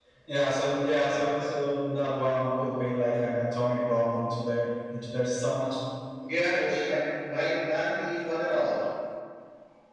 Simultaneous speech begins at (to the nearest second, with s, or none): none